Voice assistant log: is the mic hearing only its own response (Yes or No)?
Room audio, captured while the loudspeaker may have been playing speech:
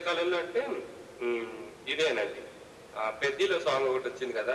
Yes